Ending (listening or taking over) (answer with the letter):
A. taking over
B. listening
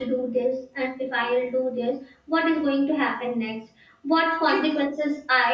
B